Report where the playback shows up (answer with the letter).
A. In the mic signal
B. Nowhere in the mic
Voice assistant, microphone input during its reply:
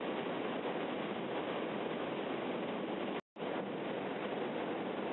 B